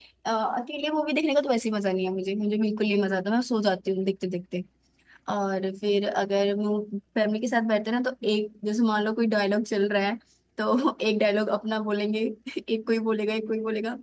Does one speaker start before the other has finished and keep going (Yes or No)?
No